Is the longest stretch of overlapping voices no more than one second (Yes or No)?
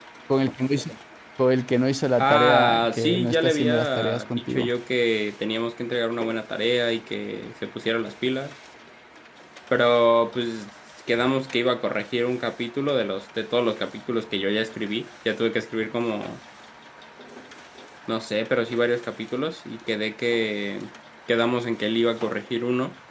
No